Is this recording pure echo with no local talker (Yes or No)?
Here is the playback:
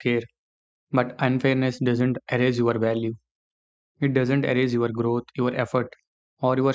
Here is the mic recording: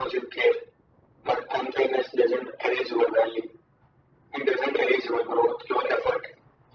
Yes